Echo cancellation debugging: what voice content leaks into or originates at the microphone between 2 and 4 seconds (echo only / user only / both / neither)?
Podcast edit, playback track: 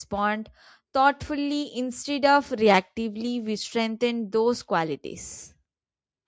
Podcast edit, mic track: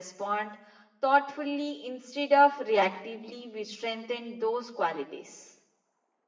echo only